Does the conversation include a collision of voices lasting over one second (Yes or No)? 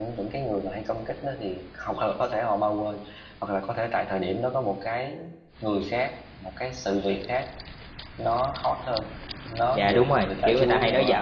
Yes